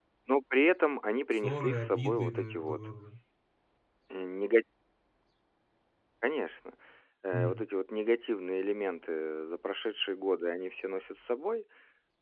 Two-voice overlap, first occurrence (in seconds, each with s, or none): 1.3 s